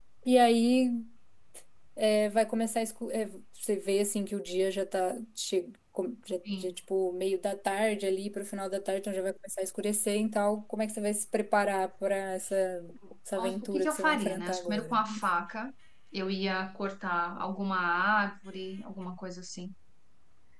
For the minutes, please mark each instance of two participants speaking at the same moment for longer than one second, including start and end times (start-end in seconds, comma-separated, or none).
13.6-15.0